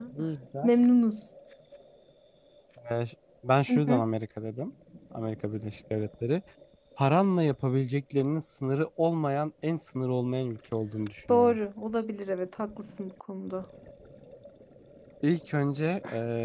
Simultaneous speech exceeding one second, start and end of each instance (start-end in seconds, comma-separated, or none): none